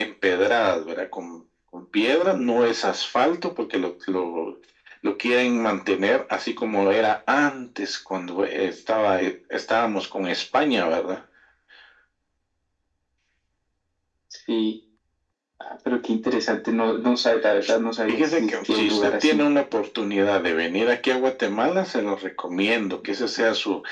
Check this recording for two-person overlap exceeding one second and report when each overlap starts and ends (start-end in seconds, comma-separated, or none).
18.1-19.4